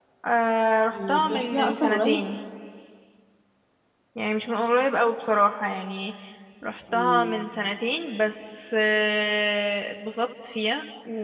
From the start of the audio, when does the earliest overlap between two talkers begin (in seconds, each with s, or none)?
0.9 s